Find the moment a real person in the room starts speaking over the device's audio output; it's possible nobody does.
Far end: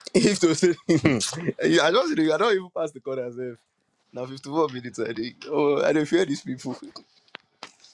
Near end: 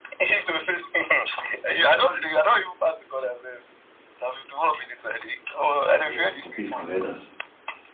6 s

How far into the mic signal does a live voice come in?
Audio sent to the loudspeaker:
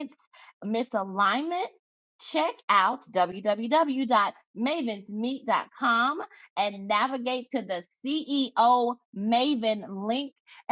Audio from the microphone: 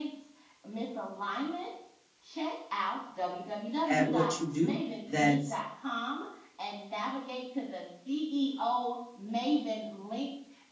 4 s

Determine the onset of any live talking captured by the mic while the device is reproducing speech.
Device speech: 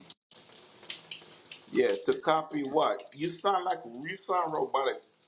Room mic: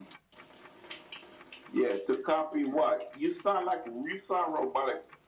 none

